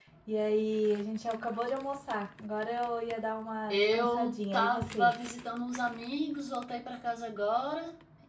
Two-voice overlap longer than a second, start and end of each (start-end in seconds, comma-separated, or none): 3.7-5.1